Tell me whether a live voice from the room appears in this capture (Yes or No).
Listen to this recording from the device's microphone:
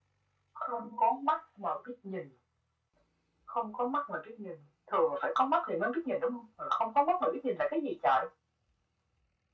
No